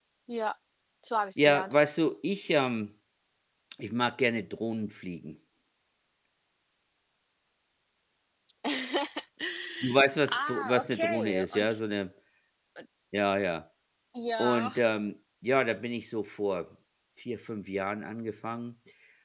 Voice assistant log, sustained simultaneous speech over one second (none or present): present